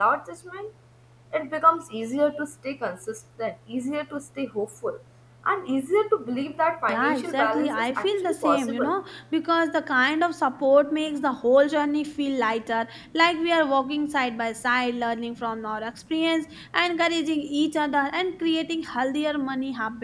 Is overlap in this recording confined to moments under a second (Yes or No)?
No